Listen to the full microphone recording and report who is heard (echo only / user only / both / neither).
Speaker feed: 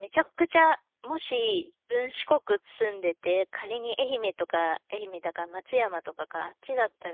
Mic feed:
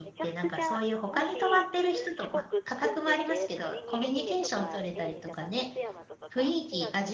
both